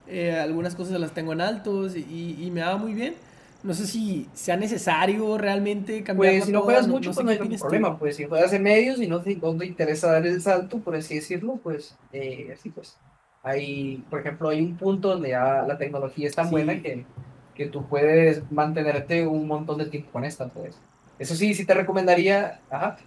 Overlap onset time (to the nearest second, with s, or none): 6 s